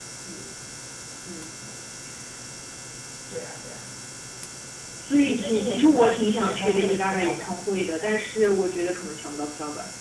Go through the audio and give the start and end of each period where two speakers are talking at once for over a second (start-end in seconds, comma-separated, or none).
5.2-7.5